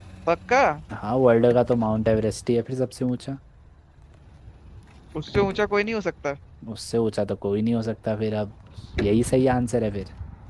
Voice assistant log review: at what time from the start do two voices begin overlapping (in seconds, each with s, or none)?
none